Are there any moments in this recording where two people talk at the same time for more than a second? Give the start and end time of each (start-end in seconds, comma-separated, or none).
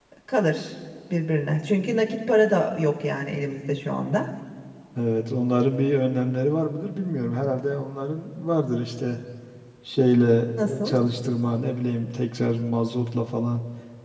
none